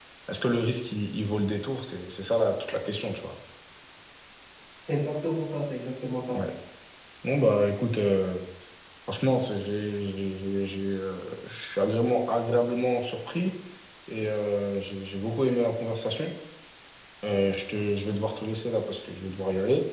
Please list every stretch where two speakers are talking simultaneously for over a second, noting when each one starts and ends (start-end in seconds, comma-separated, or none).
none